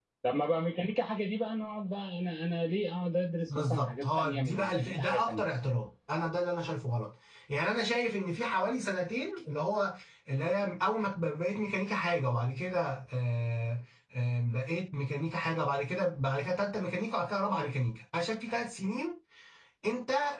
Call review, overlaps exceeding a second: present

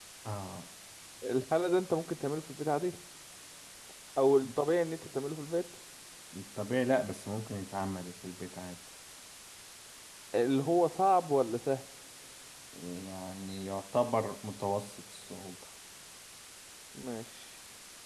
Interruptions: none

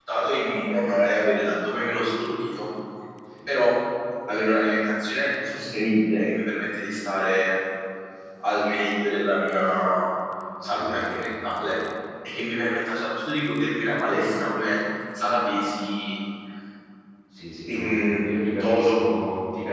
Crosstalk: present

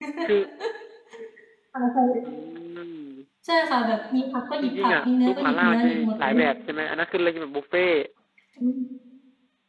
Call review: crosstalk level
present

